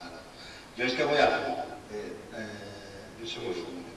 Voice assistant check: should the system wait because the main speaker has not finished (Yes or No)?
Yes